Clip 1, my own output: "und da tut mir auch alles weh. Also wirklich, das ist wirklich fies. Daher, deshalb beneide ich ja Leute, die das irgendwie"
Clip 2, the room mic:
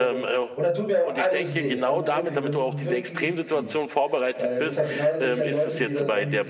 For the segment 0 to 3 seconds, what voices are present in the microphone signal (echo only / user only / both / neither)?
both